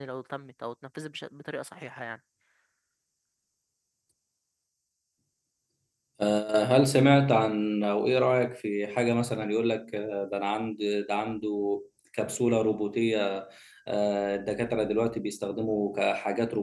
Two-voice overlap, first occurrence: none

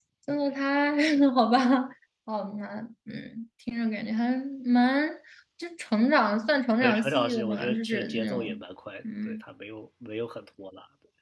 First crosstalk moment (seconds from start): 7 s

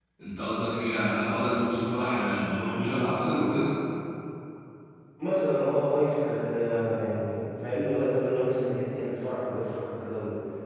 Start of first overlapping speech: none

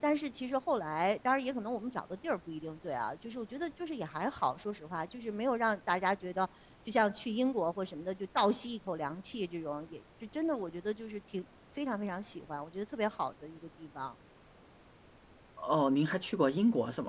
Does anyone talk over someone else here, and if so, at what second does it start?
none

